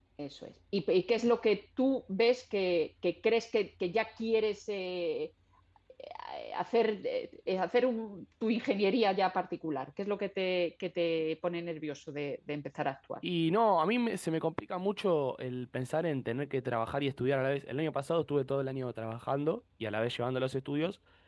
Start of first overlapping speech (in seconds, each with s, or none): none